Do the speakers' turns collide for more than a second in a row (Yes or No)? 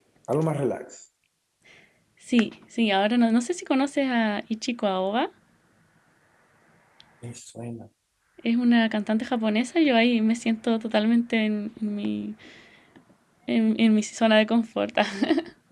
No